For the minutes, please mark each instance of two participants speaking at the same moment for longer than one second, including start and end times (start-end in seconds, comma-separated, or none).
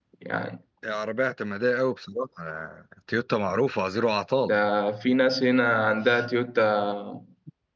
none